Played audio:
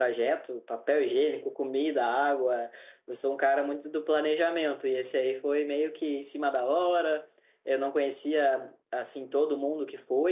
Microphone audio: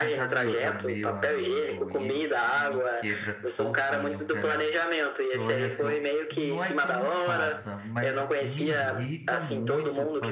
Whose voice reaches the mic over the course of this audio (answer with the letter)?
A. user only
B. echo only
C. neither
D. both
D